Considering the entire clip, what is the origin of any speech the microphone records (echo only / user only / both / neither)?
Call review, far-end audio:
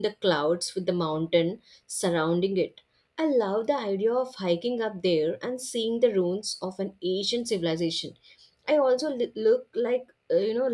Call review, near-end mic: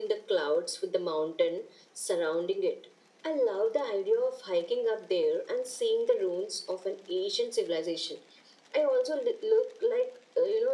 echo only